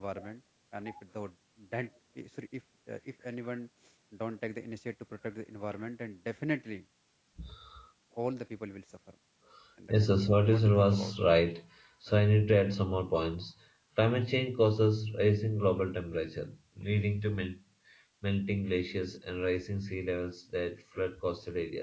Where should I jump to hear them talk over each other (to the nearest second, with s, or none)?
10 s